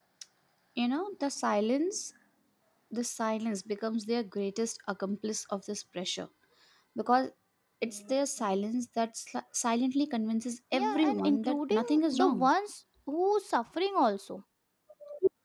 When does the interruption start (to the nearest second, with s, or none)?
11 s